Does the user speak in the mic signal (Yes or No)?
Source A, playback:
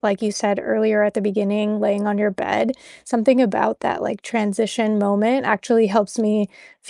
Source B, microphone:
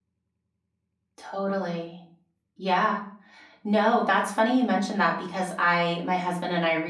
Yes